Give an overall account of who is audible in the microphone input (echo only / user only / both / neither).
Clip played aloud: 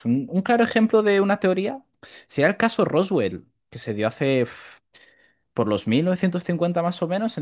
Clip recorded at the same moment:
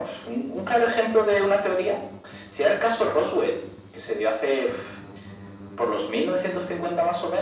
echo only